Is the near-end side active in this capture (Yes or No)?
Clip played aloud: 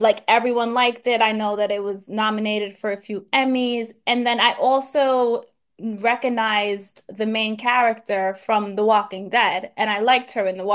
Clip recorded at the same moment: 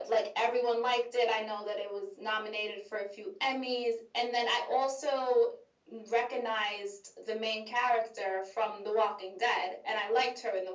No